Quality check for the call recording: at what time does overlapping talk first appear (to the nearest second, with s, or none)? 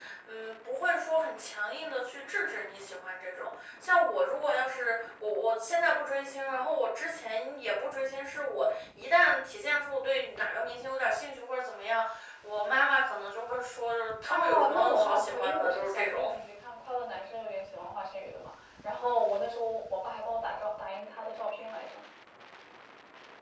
14 s